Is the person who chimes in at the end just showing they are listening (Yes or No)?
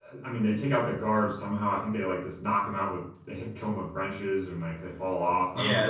No